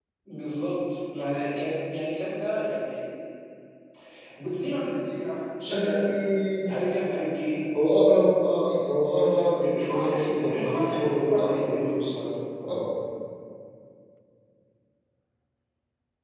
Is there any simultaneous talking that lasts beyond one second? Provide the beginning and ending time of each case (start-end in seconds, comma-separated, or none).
9.6-11.9